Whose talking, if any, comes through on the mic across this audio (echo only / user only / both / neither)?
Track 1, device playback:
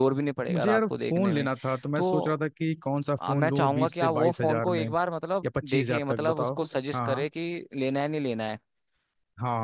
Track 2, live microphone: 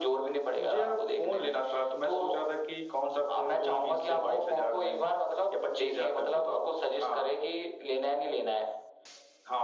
echo only